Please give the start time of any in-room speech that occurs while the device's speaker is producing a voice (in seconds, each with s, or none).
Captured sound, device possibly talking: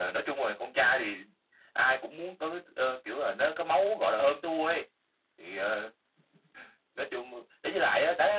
none